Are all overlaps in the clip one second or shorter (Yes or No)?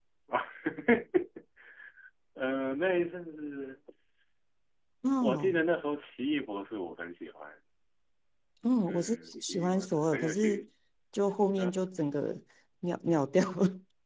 No